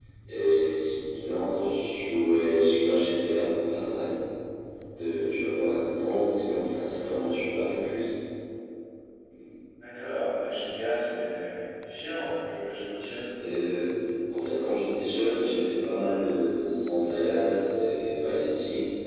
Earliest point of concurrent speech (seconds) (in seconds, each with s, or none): none